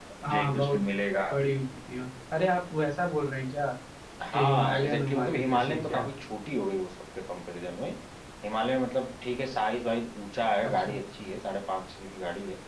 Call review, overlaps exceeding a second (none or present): present